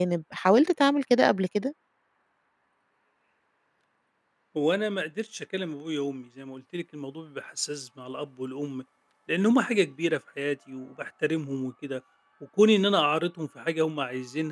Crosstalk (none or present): none